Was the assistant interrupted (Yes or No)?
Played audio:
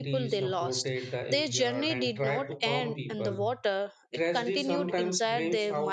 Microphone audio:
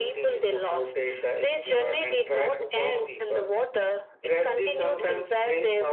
No